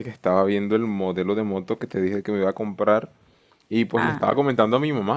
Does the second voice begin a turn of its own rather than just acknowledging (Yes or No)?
No